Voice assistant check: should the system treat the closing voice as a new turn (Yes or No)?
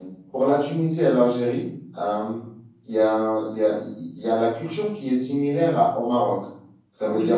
No